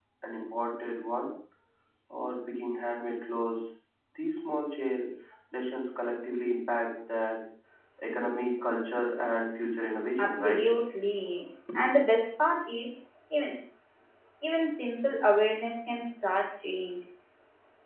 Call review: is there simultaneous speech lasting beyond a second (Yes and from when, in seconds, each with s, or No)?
No